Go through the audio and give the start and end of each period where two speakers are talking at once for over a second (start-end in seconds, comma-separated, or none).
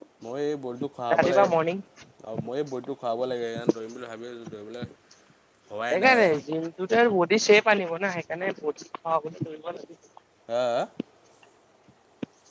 none